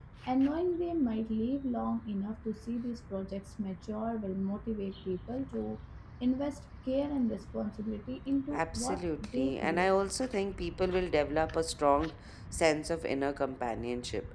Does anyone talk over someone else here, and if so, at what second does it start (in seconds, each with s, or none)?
8.5 s